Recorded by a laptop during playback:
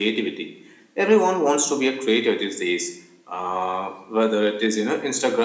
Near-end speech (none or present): none